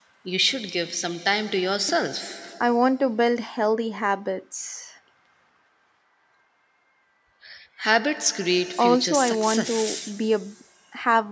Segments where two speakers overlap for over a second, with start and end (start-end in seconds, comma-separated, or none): 8.8-10.2